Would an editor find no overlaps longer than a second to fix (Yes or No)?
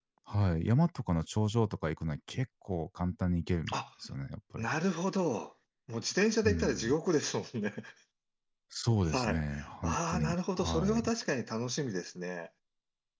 No